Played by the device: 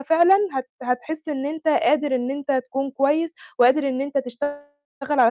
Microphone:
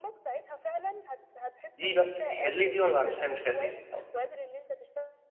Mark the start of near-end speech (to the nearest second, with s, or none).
2 s